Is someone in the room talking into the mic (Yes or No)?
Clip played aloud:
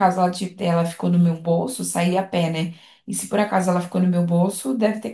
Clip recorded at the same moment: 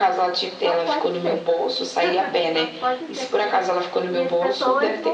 Yes